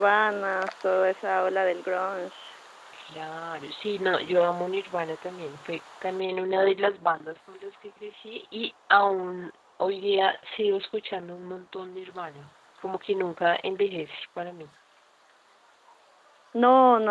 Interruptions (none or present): none